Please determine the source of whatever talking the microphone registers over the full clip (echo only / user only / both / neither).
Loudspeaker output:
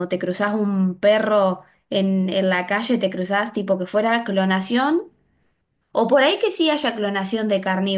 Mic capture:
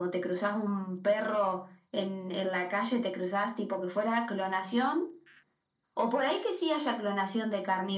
echo only